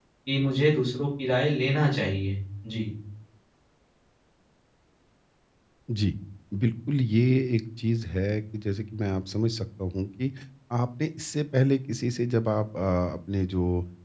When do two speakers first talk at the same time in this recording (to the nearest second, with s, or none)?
none